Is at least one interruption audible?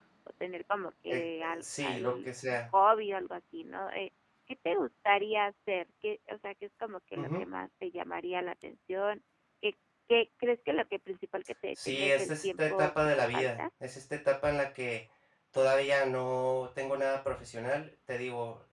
Yes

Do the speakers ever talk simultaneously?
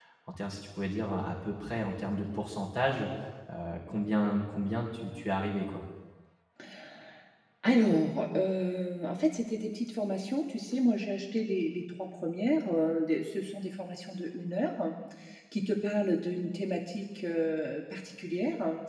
No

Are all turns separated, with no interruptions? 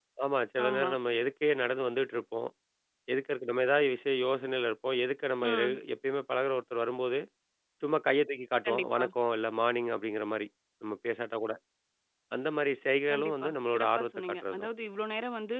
No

